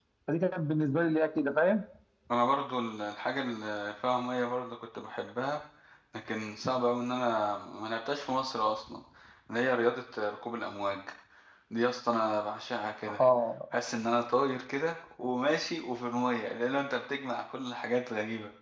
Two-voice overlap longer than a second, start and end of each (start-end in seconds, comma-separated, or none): none